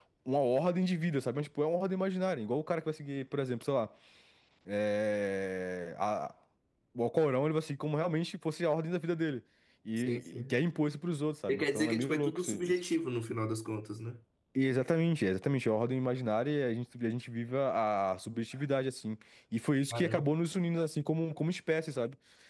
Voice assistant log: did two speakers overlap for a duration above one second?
Yes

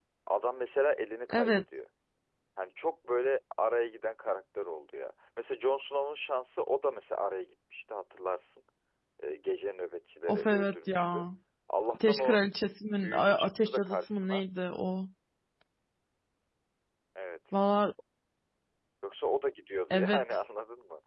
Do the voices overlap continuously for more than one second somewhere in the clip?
Yes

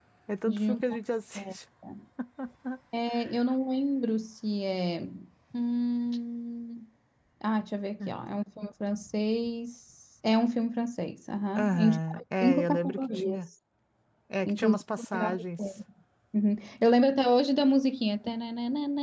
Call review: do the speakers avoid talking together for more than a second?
No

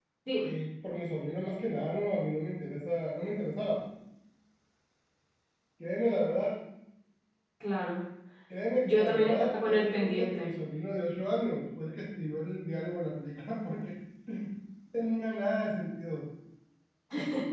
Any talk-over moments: Yes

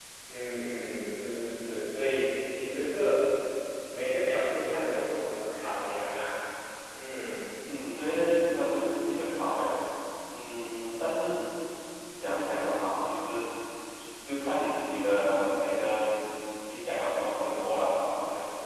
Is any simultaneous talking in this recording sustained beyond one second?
No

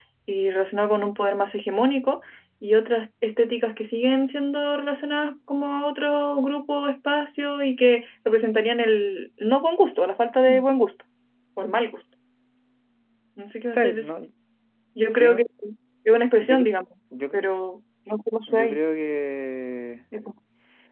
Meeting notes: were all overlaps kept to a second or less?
Yes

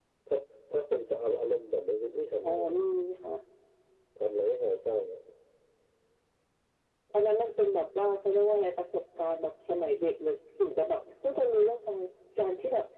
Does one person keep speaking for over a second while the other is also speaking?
No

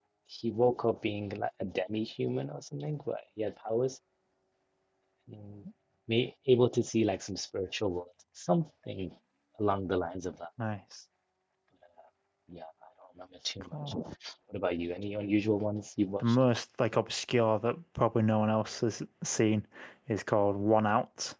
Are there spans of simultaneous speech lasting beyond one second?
No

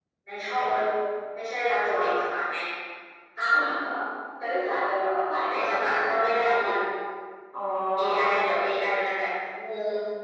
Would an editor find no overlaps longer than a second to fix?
No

